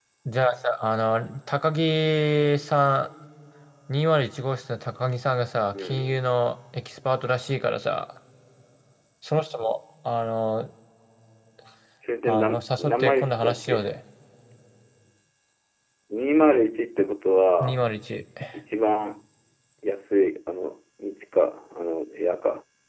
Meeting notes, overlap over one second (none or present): present